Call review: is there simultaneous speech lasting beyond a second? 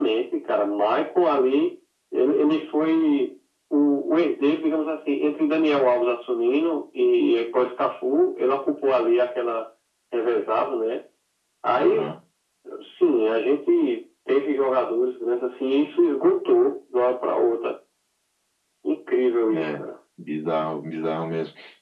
No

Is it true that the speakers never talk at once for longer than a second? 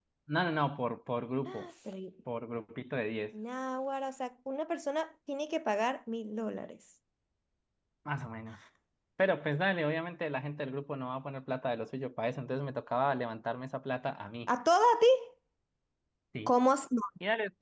Yes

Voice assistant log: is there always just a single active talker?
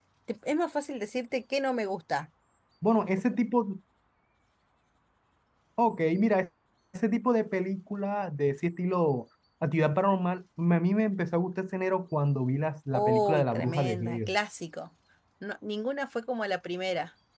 No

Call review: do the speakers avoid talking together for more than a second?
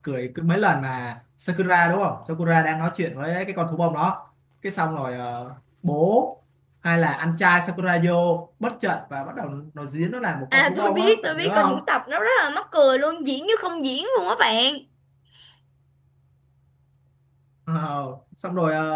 No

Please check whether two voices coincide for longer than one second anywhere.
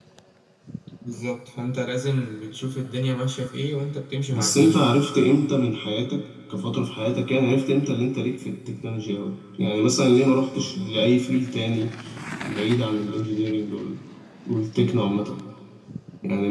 No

